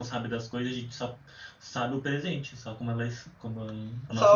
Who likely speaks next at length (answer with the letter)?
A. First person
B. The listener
B